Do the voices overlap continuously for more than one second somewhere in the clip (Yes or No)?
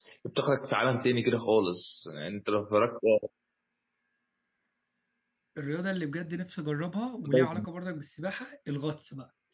No